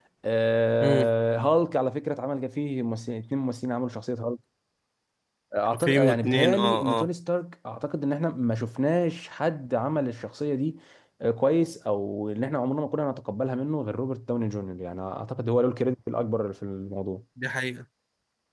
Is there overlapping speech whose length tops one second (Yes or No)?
Yes